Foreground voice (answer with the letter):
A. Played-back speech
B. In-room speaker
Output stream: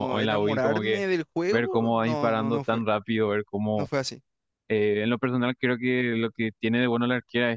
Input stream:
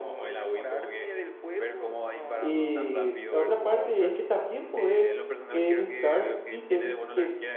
B